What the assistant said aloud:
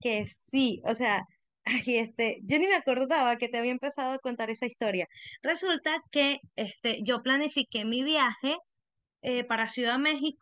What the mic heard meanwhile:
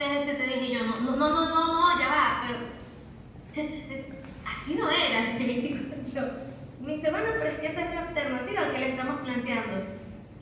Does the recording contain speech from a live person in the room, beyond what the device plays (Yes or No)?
Yes